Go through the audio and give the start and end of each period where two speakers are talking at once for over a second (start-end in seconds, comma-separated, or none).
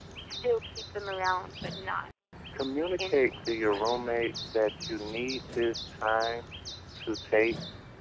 2.8-4.0